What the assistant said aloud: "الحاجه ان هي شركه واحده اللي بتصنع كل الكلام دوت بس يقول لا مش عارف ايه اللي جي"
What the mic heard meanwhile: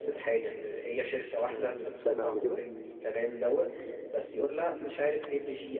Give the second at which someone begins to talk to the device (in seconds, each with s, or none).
1.5 s